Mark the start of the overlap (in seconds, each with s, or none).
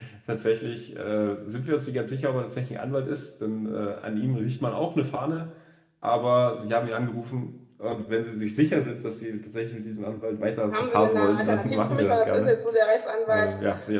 10.7 s